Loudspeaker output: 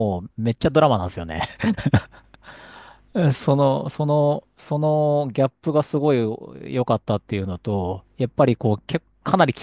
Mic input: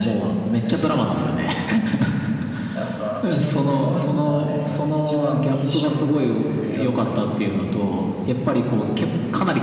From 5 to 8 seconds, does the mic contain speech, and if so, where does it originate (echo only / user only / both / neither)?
both